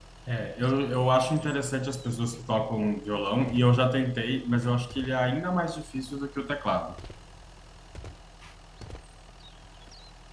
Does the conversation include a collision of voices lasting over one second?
No

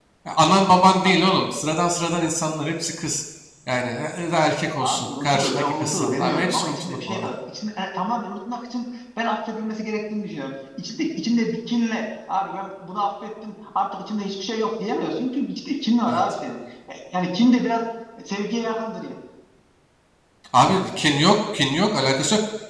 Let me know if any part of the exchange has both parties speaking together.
Yes, from 4.8 s

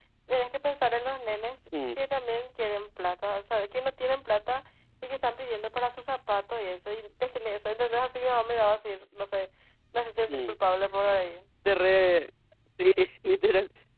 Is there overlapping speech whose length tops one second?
No

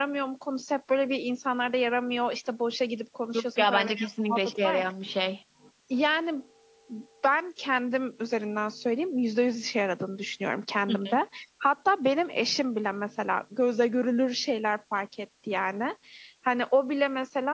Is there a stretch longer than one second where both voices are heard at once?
Yes, from 3.3 s

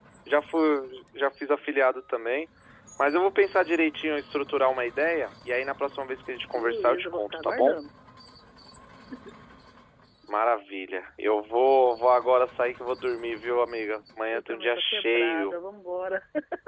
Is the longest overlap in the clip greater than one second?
Yes, from 6.5 s

